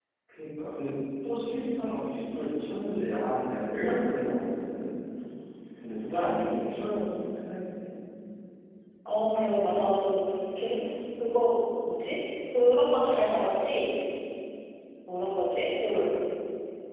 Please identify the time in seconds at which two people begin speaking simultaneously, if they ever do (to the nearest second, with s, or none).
none